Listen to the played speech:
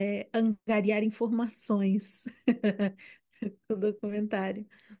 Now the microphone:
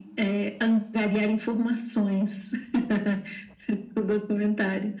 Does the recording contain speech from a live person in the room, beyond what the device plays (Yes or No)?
No